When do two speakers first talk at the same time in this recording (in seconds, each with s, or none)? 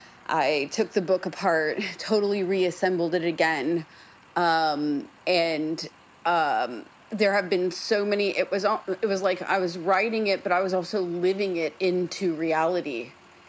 none